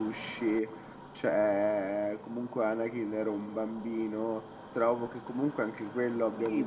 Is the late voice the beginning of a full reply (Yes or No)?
Yes